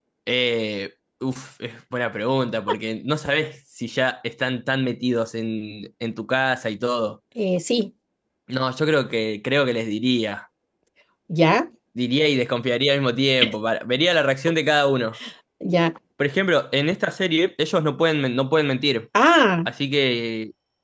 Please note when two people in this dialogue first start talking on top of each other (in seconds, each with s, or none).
none